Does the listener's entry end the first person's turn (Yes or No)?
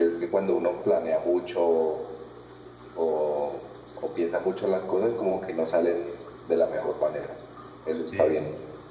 Yes